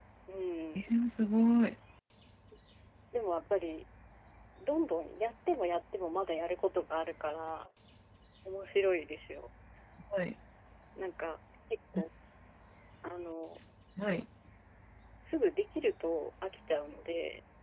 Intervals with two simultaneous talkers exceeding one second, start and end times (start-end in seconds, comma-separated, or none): none